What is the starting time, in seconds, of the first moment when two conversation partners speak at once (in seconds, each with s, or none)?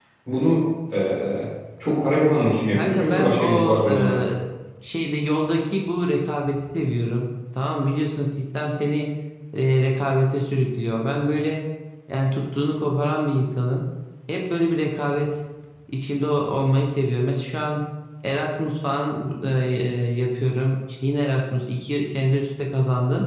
2.7 s